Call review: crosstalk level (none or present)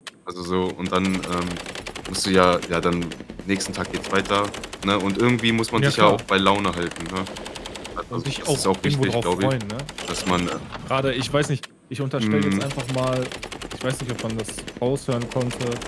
present